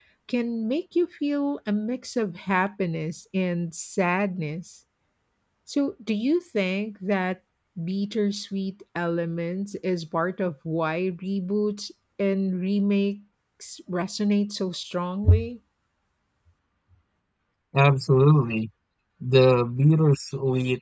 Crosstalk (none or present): none